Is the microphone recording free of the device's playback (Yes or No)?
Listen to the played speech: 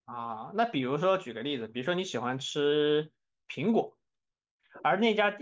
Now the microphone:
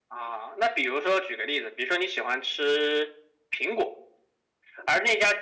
No